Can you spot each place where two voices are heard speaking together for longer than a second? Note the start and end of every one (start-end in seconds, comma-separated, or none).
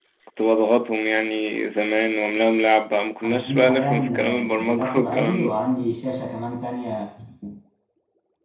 3.2-5.6